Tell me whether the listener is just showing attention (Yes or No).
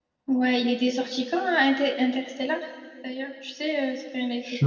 No